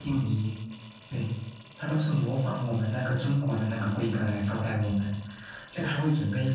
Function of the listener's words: listening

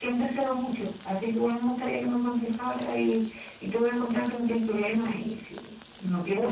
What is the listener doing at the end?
taking over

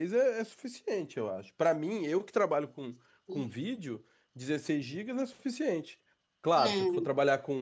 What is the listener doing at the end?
listening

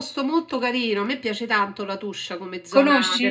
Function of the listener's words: listening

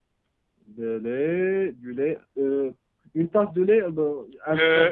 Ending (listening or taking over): taking over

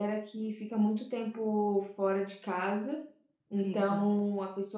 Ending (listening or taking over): listening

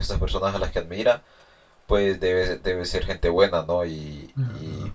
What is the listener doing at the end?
listening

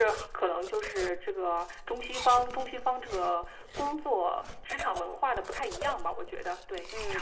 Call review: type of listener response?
taking over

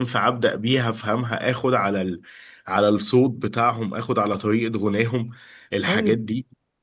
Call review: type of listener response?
taking over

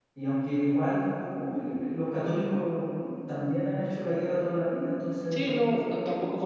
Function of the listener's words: taking over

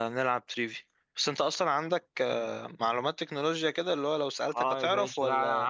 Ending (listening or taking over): taking over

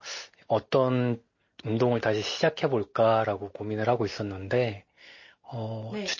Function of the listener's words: listening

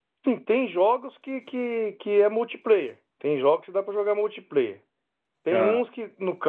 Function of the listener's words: listening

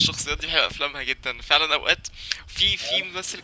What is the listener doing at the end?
listening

